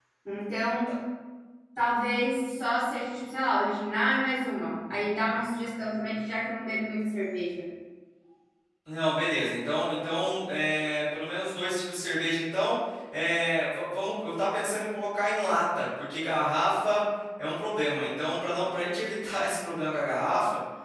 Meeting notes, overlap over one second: none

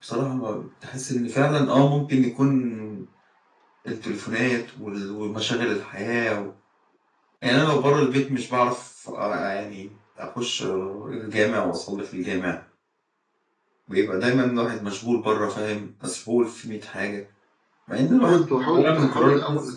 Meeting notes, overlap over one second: present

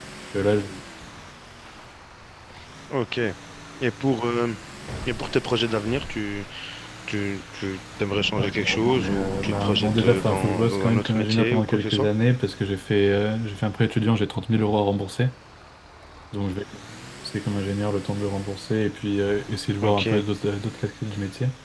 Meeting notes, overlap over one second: present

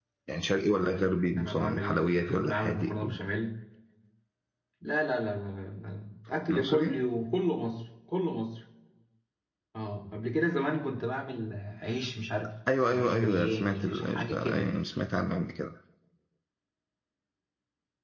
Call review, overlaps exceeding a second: present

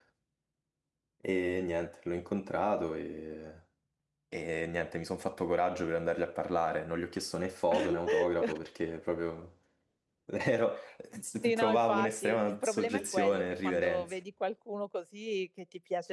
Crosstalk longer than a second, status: present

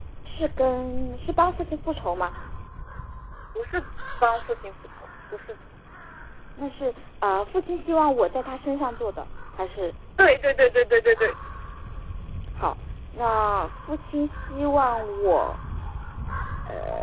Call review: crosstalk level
none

